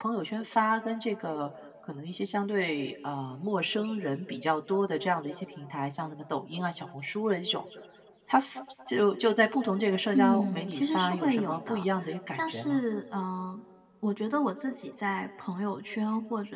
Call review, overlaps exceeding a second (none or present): present